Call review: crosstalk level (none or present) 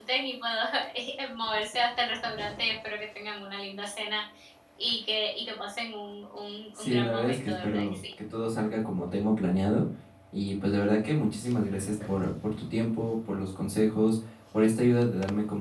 present